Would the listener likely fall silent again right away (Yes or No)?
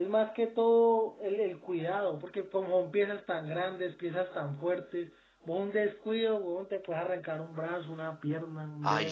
No